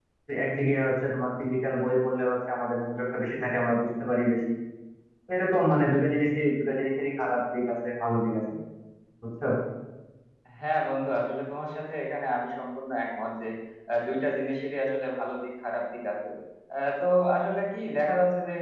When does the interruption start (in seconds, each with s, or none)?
none